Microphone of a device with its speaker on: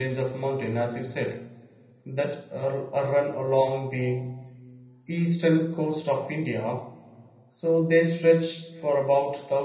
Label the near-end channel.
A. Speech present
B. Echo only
A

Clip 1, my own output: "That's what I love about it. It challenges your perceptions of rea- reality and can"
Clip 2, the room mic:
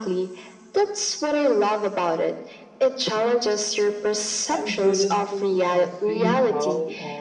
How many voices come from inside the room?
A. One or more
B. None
A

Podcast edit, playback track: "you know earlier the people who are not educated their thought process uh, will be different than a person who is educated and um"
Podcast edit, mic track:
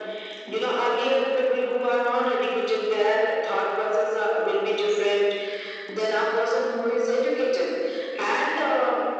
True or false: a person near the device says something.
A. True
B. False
B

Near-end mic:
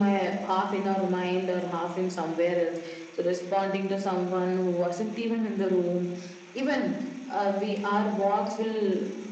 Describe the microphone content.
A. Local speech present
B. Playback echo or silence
B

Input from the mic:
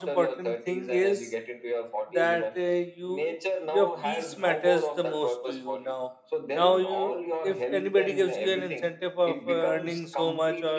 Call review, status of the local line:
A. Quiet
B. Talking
B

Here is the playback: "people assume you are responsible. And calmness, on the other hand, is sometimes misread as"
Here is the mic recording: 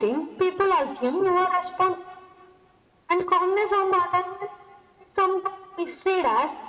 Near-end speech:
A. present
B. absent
B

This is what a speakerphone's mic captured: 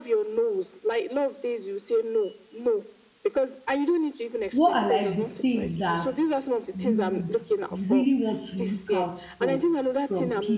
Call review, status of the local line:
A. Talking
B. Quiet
A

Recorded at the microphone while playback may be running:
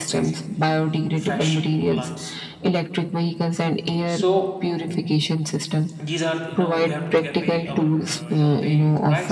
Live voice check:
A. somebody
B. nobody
A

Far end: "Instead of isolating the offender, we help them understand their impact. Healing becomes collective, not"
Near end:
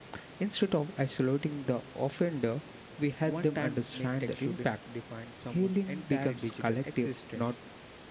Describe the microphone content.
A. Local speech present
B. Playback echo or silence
A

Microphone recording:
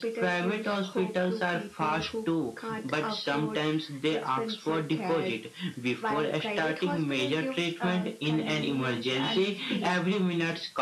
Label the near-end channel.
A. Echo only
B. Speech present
A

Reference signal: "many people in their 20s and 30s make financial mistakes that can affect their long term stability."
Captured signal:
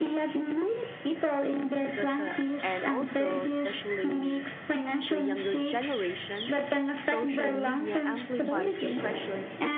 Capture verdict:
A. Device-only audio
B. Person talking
B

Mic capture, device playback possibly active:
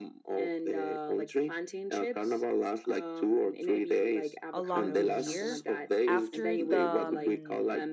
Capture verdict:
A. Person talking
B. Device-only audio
A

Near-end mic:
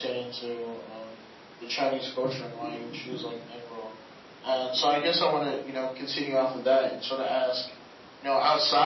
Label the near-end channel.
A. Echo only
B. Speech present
A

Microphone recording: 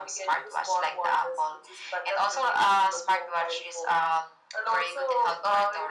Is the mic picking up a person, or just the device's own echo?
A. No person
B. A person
A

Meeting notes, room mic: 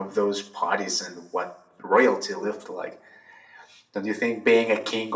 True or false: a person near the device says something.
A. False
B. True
A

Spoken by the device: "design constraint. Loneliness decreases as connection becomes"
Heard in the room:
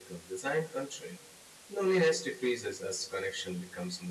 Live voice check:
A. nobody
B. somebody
A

